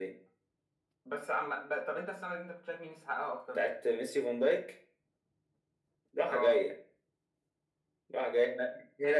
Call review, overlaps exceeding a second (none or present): none